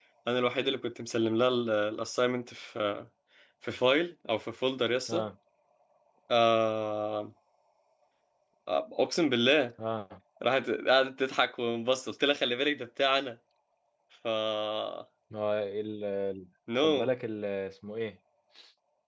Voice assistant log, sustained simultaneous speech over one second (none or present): none